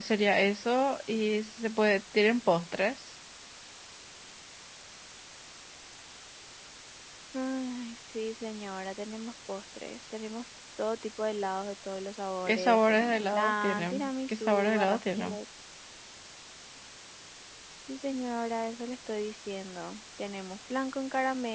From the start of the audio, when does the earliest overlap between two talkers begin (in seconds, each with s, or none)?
12.5 s